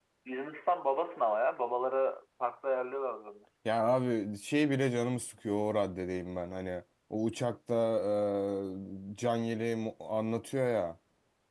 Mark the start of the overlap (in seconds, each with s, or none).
none